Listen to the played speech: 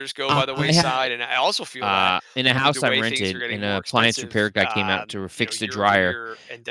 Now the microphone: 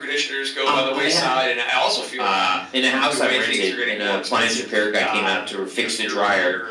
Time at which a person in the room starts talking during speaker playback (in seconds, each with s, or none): none